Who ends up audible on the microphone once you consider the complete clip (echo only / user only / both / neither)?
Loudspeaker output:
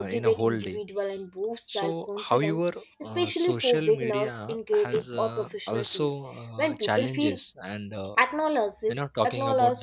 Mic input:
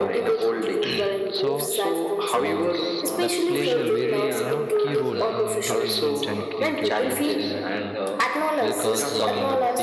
both